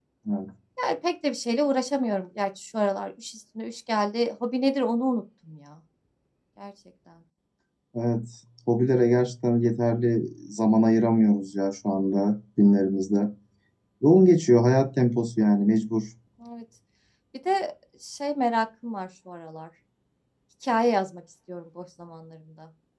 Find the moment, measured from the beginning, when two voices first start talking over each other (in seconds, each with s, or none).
none